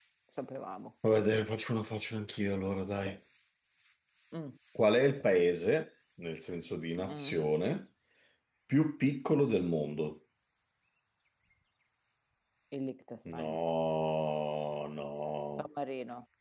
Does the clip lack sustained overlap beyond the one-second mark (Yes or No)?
Yes